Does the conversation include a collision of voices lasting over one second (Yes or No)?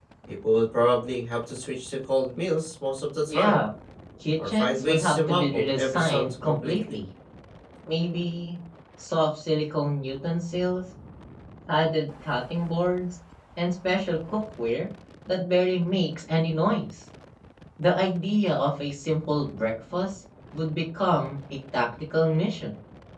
Yes